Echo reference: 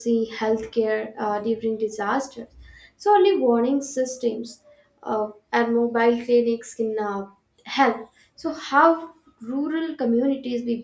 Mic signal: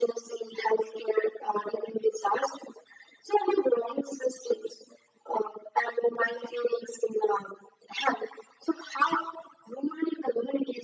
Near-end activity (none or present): none